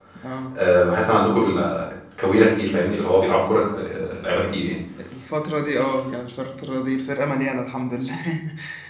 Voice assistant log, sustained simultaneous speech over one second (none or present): none